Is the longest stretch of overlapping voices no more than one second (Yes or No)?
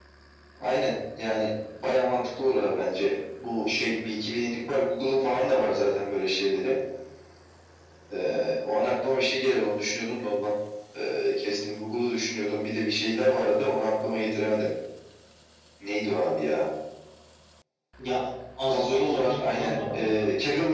No